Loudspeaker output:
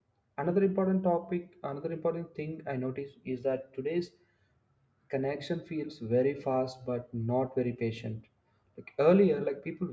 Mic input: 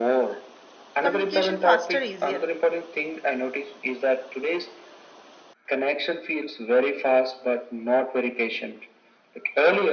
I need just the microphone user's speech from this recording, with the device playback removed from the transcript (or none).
communication faster easier